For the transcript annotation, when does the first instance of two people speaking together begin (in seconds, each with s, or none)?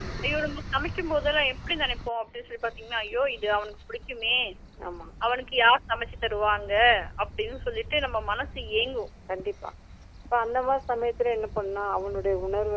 none